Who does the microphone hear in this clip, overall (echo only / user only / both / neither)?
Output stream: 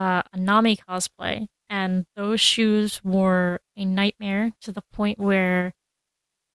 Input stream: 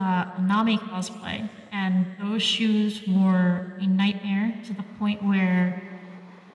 echo only